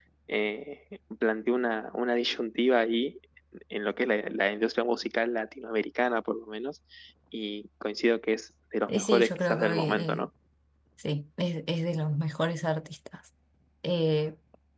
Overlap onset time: 8.9 s

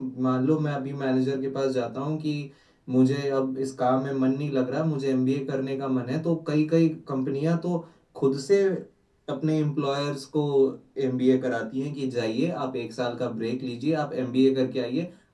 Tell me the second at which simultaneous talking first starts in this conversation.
none

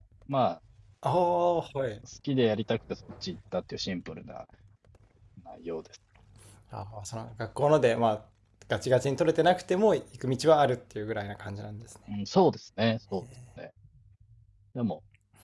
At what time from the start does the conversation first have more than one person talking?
none

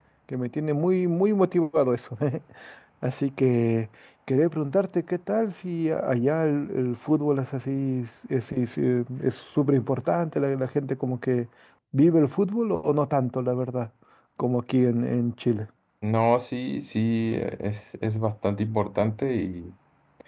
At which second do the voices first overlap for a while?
none

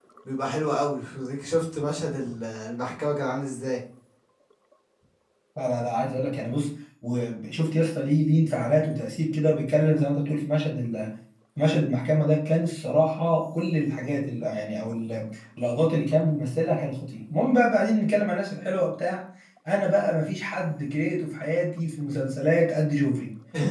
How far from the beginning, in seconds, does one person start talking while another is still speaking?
none

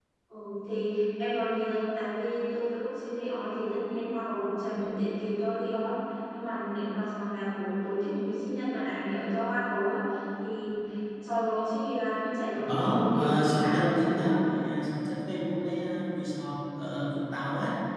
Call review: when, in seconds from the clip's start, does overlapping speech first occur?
12.6 s

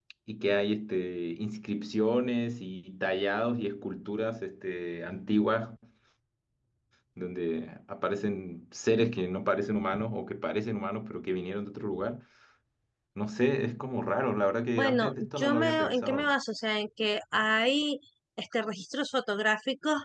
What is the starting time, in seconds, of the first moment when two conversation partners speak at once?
14.8 s

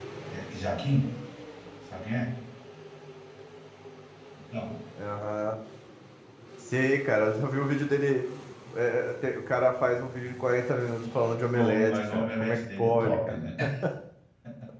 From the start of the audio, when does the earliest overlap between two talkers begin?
11.5 s

